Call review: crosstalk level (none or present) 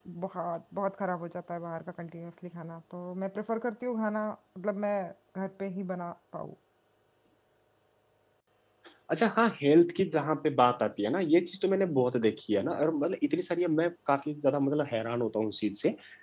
none